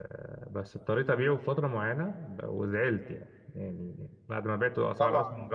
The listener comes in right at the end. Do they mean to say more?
No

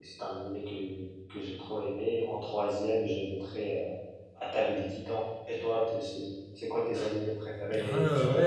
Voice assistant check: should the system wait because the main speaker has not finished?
No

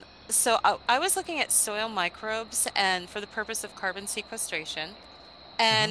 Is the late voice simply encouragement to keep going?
Yes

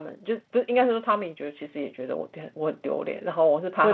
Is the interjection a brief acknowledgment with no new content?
No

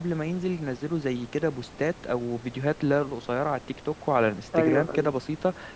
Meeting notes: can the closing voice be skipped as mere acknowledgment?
Yes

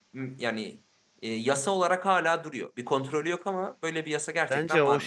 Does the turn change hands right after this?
Yes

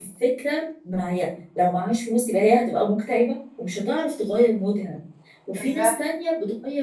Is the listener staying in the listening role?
Yes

